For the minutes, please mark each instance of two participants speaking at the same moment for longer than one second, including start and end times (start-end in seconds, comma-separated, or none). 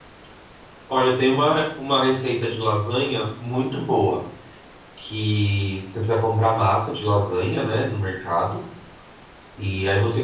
none